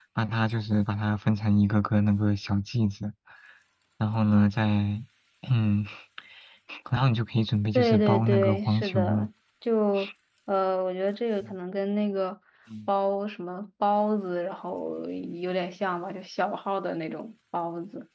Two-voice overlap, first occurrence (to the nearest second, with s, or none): 8 s